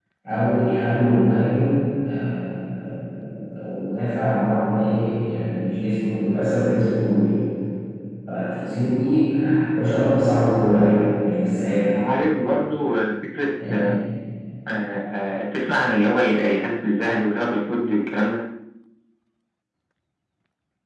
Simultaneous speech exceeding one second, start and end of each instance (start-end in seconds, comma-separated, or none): none